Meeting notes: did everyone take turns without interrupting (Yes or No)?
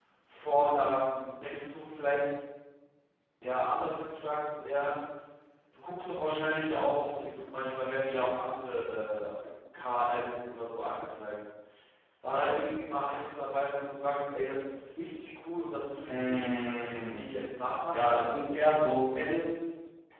No